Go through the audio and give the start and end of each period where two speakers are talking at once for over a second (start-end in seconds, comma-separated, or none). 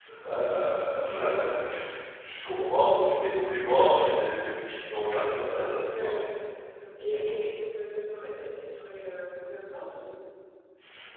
none